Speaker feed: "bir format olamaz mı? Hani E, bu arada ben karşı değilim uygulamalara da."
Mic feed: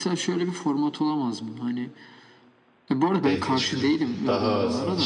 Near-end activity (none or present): present